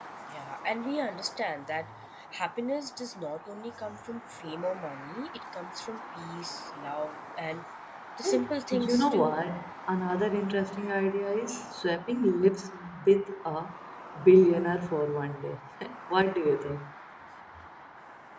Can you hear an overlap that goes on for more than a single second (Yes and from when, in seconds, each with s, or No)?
Yes, from 8.2 s